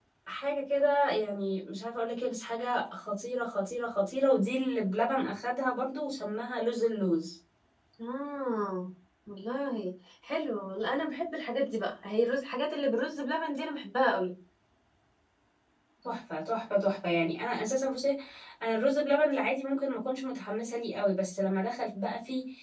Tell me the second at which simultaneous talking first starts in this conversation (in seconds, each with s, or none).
none